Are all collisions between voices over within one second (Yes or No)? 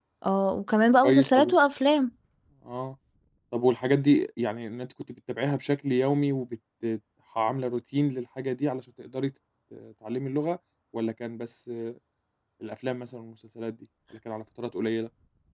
Yes